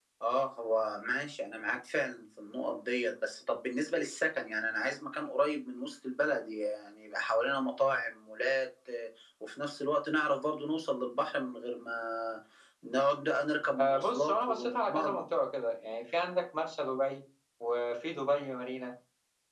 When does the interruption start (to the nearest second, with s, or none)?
14 s